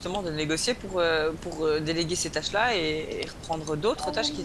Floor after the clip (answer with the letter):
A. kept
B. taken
B